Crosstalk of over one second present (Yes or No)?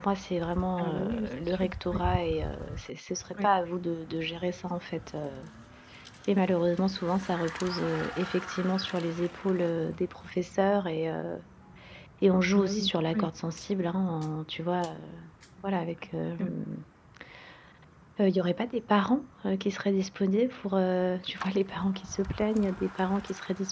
Yes